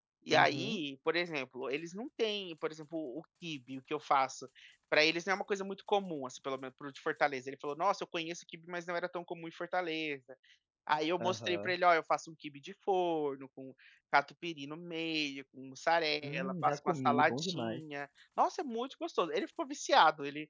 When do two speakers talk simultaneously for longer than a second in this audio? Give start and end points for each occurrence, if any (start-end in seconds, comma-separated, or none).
16.2-17.8